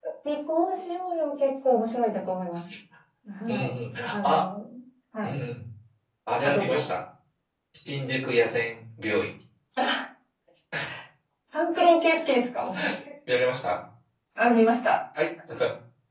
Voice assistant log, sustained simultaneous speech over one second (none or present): none